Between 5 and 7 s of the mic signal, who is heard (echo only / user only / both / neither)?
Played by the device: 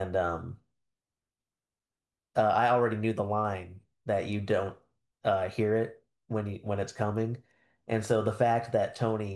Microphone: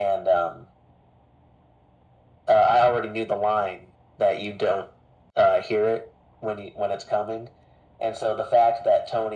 echo only